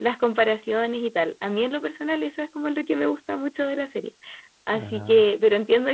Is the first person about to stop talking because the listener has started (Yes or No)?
No